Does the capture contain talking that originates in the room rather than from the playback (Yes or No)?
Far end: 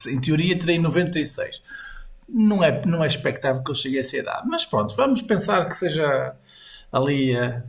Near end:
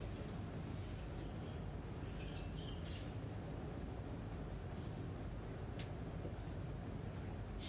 No